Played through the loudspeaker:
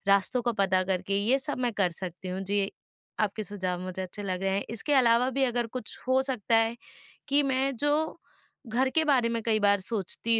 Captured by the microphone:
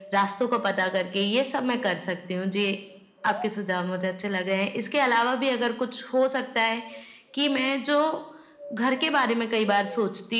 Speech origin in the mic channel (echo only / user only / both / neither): echo only